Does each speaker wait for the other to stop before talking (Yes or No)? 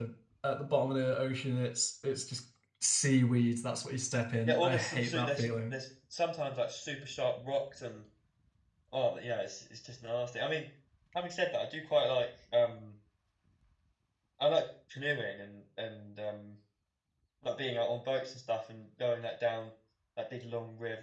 No